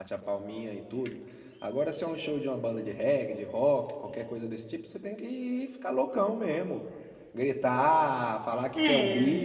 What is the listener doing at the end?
listening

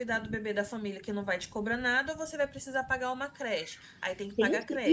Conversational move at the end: taking over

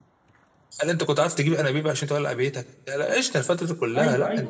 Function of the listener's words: taking over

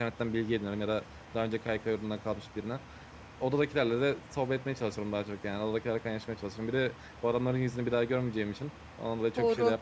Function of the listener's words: taking over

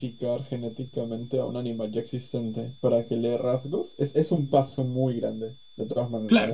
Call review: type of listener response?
taking over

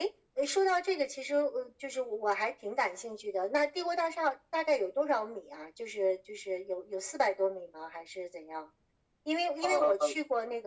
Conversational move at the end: listening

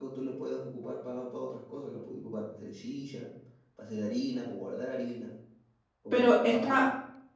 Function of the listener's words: taking over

